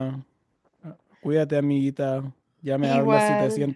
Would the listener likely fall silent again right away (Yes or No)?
Yes